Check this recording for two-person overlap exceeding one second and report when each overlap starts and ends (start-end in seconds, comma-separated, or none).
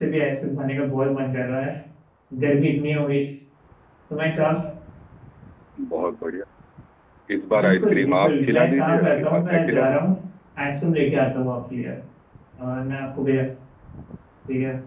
7.6-10.0